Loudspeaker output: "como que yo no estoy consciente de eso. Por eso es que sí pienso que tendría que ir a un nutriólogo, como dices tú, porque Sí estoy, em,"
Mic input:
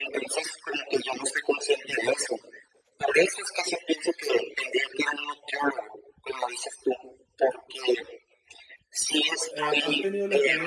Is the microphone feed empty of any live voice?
No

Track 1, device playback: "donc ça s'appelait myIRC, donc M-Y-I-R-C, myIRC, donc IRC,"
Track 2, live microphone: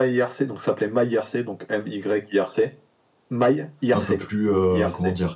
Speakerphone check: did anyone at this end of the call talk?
Yes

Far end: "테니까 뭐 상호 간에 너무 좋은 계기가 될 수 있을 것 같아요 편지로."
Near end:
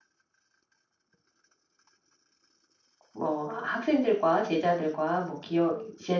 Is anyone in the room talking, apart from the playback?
Yes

